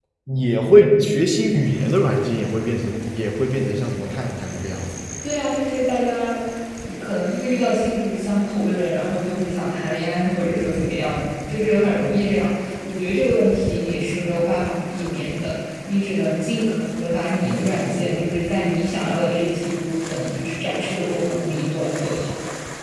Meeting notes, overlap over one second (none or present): none